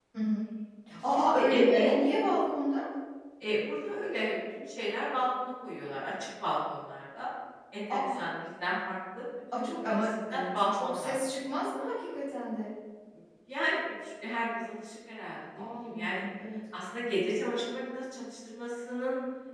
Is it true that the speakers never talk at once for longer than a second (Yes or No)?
No